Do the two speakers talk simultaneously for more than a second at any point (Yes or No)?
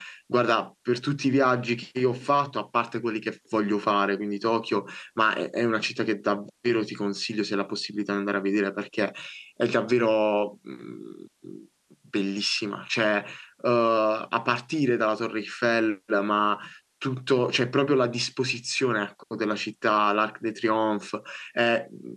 No